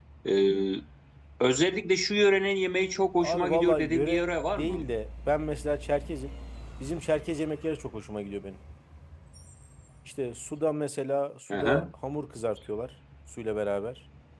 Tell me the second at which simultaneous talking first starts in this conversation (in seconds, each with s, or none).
3.2 s